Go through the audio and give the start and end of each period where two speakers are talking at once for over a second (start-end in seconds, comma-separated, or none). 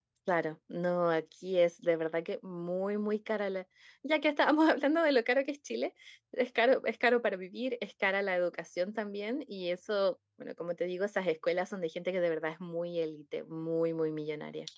none